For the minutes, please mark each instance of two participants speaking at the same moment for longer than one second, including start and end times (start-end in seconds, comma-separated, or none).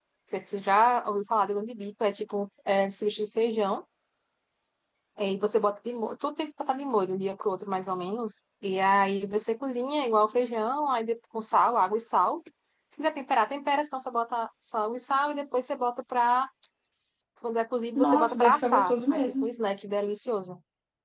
18.0-19.5